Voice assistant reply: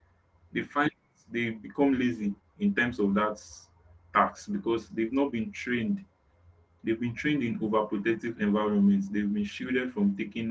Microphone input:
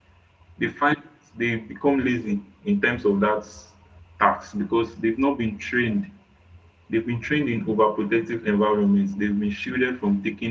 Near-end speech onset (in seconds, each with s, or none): none